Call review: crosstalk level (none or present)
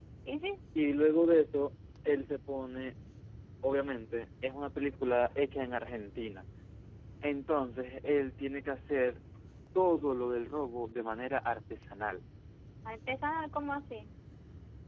none